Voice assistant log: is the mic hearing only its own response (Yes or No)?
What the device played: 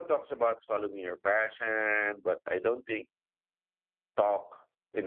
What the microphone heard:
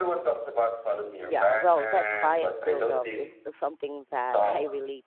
No